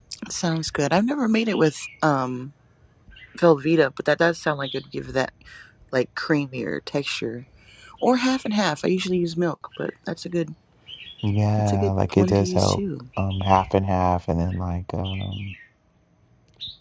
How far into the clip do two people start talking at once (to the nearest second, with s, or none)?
12 s